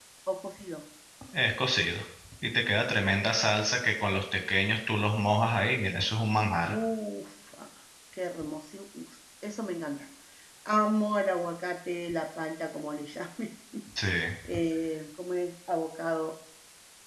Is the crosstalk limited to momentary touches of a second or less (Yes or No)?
Yes